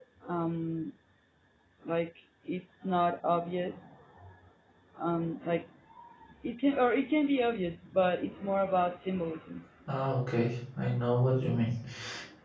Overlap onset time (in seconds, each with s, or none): none